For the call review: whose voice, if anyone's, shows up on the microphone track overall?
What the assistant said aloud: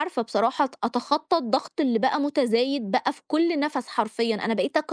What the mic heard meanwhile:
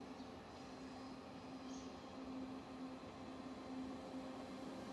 neither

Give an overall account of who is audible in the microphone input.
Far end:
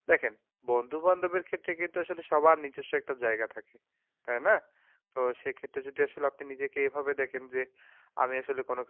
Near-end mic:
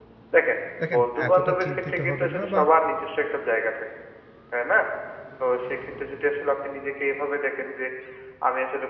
both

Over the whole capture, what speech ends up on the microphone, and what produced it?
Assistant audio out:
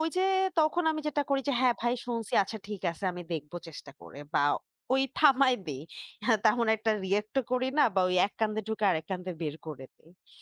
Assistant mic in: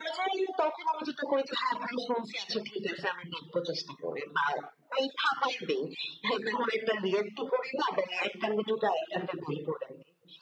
echo only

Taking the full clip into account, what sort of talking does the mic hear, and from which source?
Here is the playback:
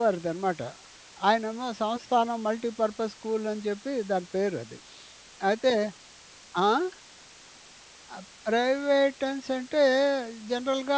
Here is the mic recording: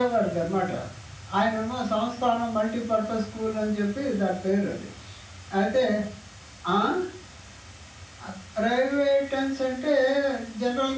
echo only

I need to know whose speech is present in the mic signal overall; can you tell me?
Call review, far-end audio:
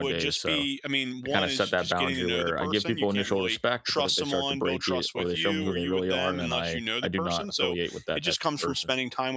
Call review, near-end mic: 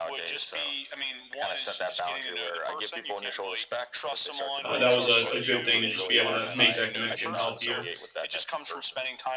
both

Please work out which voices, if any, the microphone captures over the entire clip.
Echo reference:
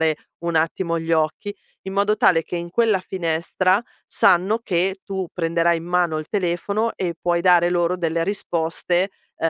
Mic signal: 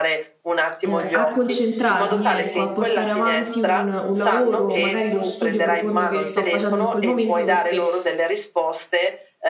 both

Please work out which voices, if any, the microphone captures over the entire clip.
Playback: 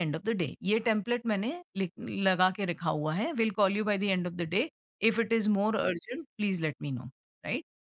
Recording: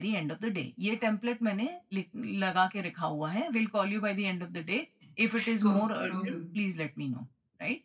both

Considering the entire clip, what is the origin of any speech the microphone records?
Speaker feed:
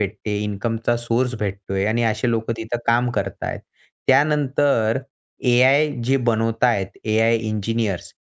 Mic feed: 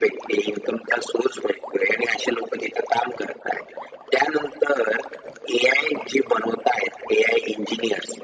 echo only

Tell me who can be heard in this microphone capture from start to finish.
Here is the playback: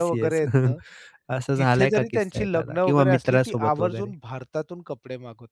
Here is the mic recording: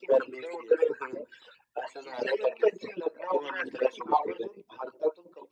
echo only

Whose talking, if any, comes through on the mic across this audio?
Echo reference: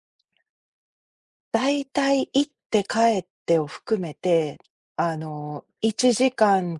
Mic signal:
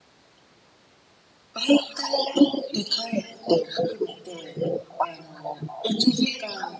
echo only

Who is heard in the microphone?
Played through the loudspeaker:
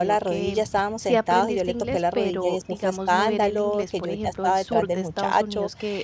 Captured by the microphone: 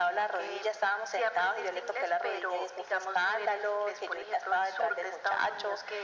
echo only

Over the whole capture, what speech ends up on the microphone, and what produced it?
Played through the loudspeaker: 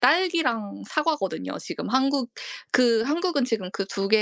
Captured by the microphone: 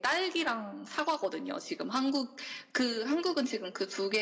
echo only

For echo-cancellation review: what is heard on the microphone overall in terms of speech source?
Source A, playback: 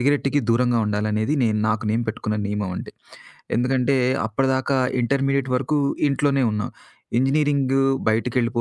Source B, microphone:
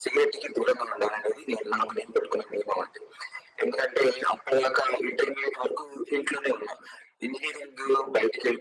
echo only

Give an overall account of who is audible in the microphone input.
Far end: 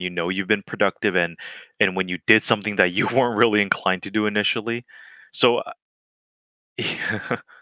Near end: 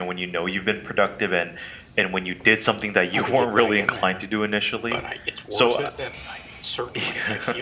both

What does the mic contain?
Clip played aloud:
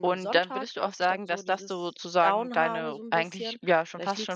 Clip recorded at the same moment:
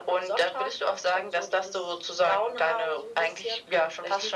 echo only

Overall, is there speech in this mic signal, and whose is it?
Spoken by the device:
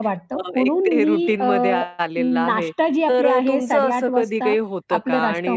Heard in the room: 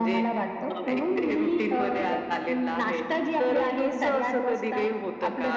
echo only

